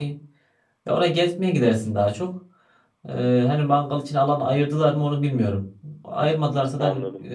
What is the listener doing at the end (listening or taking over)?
listening